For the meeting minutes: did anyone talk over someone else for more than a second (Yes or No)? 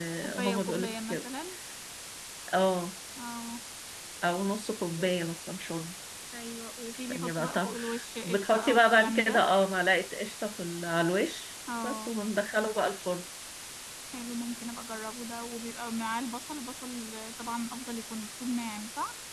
Yes